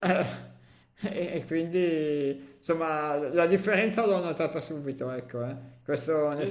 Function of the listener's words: listening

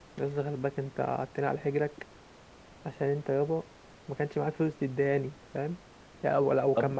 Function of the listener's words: listening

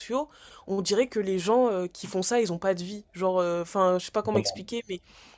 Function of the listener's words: listening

